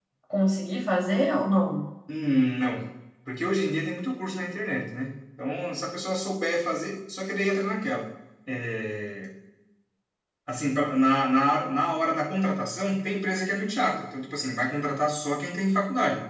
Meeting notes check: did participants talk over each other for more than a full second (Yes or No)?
No